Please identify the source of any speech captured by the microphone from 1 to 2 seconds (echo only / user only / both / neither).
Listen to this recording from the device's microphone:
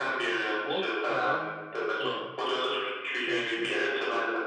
both